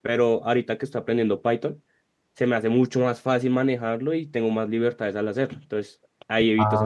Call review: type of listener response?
taking over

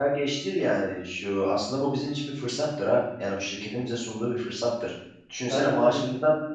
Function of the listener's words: listening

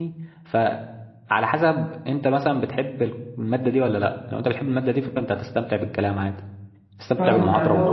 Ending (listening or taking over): taking over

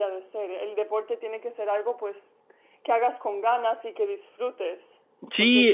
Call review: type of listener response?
taking over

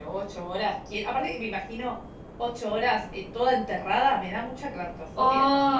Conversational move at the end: taking over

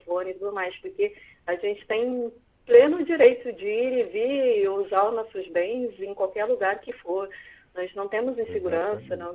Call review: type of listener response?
listening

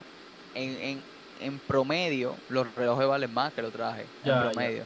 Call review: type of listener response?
taking over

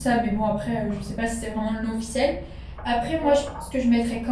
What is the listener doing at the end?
listening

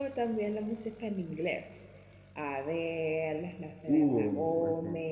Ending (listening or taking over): listening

